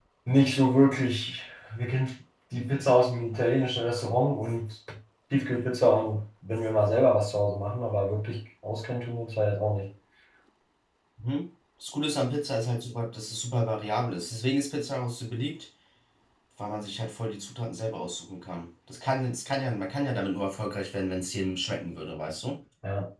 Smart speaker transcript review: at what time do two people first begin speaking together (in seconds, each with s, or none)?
none